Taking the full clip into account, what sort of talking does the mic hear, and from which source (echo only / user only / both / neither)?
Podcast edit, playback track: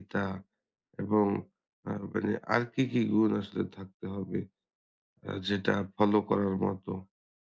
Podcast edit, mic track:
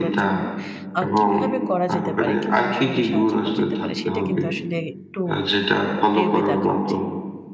both